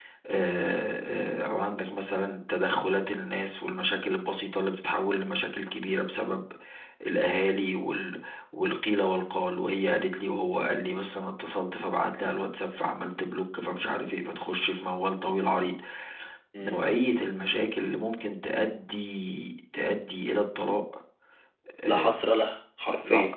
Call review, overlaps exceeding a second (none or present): none